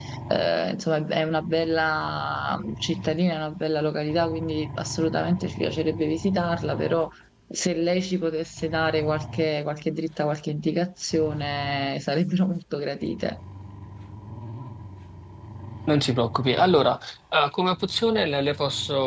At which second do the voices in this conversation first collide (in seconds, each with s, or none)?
none